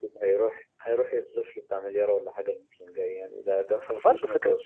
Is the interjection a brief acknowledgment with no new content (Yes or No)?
No